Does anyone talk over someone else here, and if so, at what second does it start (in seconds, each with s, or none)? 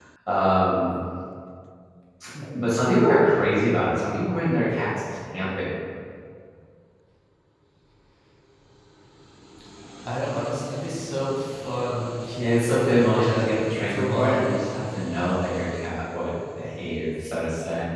12.4 s